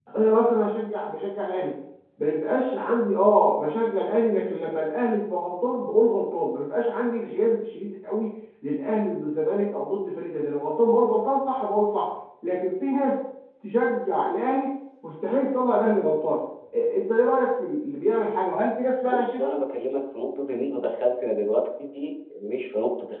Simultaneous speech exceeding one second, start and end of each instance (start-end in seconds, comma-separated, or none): none